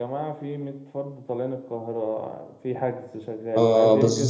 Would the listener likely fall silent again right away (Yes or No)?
No